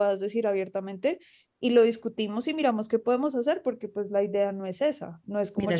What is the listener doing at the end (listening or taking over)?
taking over